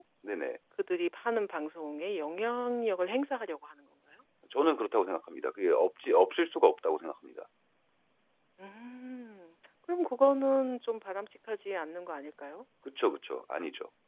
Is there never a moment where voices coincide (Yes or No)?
Yes